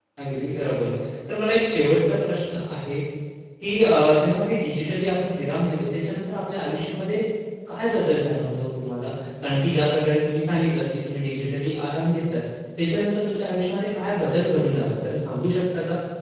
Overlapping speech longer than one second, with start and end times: none

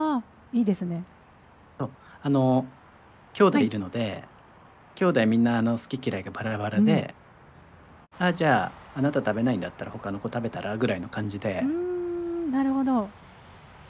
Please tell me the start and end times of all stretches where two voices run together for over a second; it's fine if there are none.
none

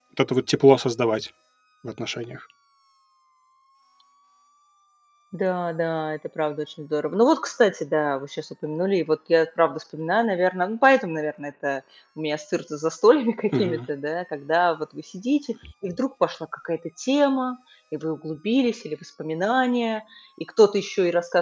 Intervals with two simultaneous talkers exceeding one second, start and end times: none

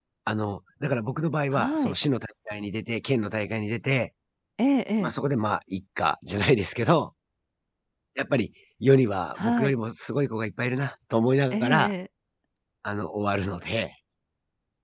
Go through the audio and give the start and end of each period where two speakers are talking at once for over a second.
none

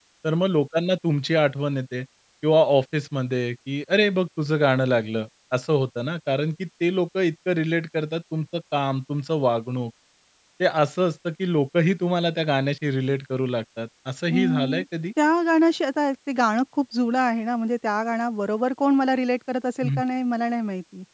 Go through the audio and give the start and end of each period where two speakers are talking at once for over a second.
none

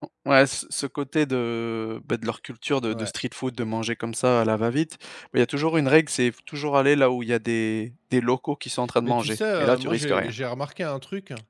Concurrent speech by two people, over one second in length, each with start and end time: 9.0-10.3

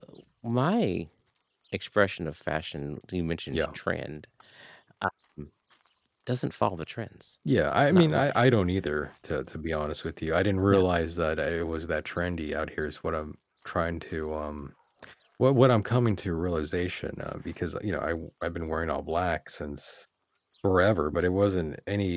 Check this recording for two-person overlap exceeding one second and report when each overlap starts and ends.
none

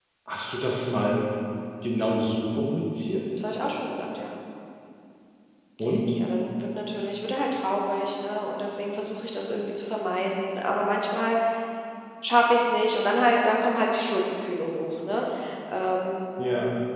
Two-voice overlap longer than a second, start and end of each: none

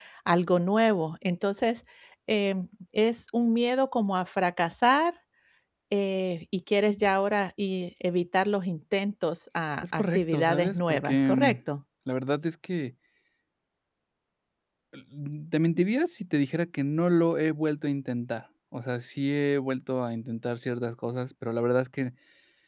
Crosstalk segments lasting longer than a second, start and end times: 9.8-11.6

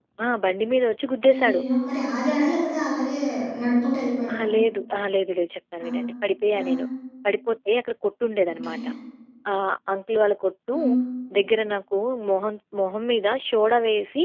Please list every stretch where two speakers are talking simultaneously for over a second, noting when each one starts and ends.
none

